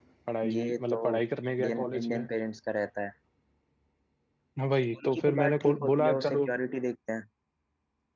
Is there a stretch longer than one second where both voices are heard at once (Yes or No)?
Yes